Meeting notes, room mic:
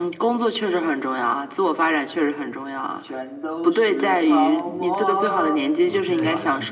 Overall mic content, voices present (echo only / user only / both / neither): both